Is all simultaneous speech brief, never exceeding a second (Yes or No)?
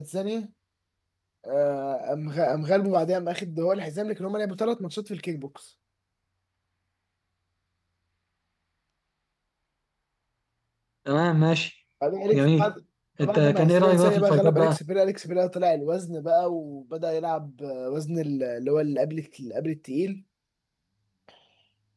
No